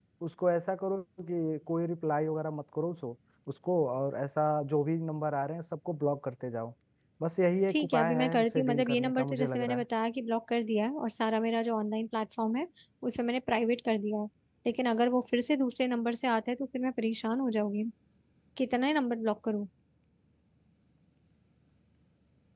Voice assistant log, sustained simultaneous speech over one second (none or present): present